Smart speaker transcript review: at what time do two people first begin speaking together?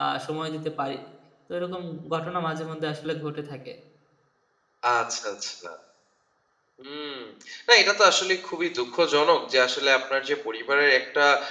none

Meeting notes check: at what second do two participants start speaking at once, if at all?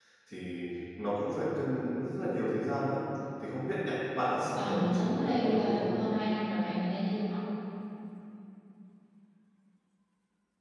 4.6 s

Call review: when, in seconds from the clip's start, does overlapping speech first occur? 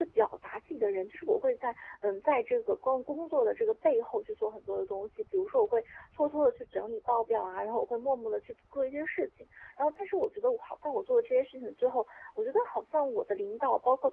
none

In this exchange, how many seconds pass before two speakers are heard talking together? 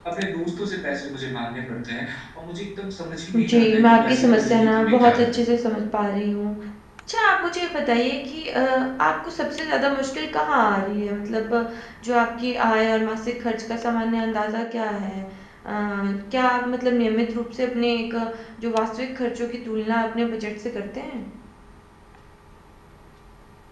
3.3 s

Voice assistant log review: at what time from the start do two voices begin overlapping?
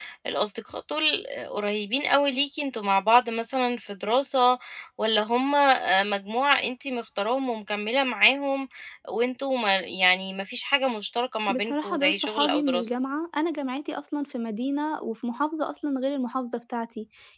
11.5 s

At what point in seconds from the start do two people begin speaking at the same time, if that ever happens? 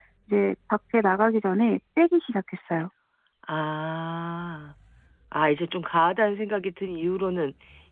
none

